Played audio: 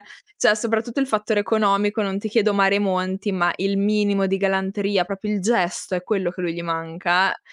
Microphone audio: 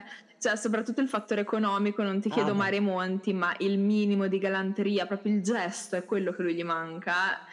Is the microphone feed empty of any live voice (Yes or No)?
No